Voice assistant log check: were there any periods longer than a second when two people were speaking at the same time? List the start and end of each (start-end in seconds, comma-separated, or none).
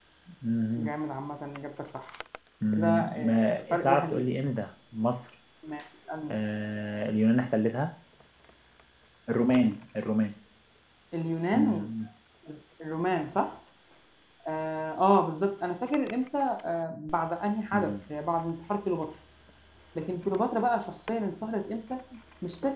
2.7-4.3